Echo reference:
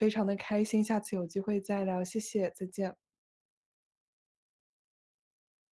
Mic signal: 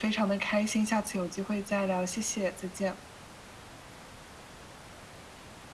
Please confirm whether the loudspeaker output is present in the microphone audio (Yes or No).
Yes